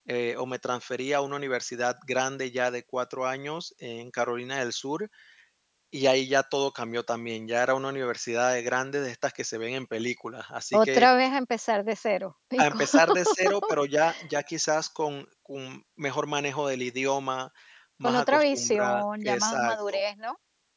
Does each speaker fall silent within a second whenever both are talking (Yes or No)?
No